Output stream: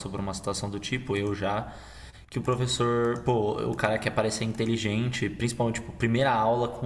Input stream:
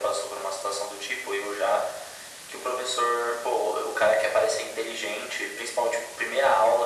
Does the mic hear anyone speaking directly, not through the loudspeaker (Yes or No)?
No